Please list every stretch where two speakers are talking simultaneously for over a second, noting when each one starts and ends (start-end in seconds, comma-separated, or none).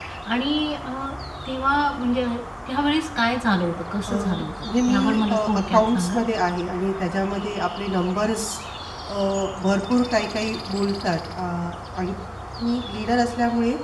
4.9-6.2